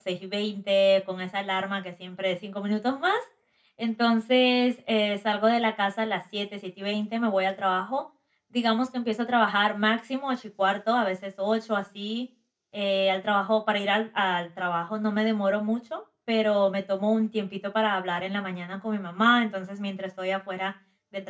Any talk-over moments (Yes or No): No